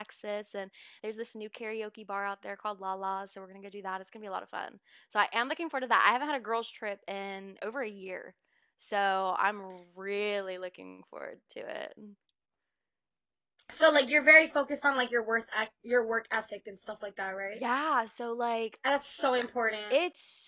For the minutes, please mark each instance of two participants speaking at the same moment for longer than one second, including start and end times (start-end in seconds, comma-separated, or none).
none